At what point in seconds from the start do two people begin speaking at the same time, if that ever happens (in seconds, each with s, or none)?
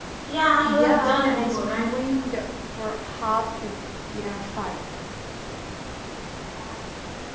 0.7 s